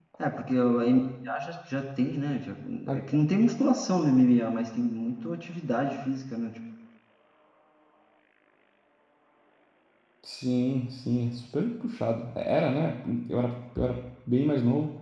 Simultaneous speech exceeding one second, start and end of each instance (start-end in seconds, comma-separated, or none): none